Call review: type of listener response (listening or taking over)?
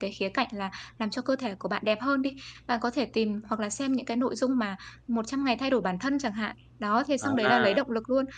listening